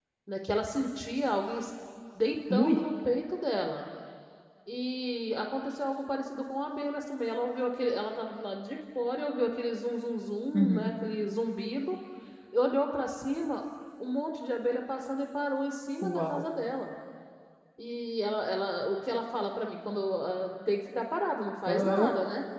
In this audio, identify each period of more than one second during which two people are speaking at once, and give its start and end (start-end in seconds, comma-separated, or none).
none